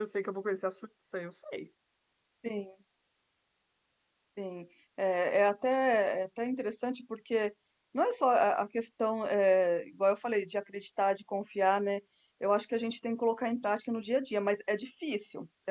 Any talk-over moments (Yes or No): No